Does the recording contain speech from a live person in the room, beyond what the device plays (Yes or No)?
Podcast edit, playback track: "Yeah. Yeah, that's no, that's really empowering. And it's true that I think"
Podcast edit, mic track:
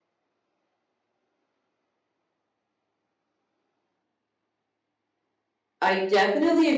Yes